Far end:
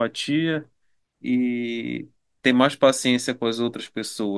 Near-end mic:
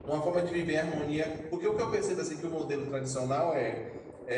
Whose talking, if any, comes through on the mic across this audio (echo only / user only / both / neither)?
user only